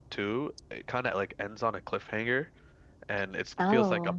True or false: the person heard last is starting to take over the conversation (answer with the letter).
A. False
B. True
A